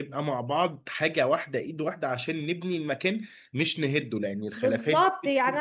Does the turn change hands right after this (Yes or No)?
Yes